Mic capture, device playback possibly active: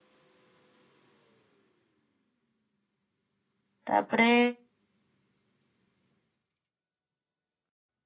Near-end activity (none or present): present